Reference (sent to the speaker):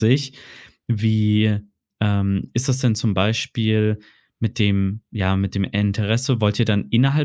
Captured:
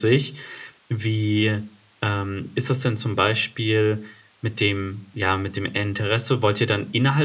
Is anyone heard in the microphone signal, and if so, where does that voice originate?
echo only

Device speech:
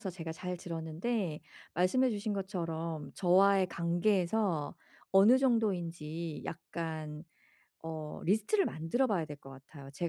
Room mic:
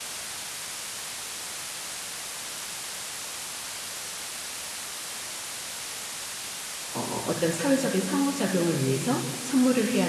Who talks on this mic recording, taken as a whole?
user only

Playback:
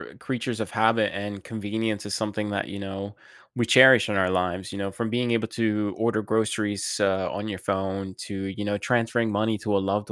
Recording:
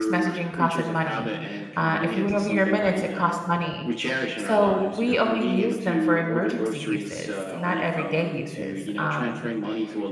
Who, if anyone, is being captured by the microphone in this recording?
both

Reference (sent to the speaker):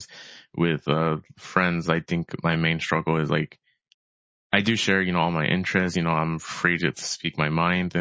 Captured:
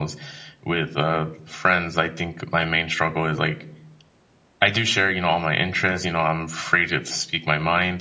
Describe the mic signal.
echo only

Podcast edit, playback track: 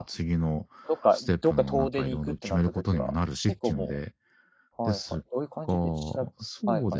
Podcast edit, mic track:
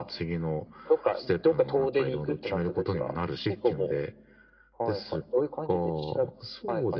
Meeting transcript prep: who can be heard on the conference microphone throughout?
echo only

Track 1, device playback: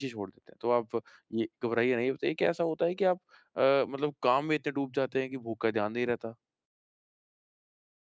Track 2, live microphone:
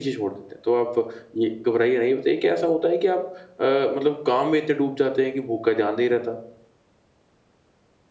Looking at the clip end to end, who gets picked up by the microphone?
echo only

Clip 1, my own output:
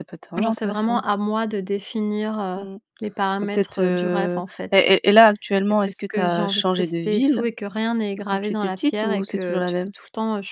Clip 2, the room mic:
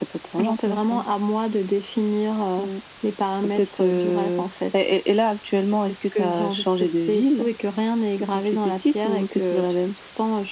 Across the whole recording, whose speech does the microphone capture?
echo only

